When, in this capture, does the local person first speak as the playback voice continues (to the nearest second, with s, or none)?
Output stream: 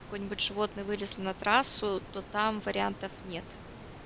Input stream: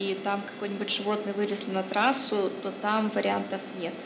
none